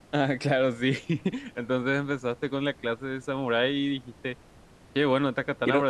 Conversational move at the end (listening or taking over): listening